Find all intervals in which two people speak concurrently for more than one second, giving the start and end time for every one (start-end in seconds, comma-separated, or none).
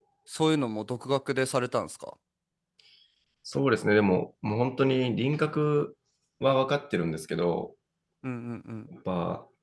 none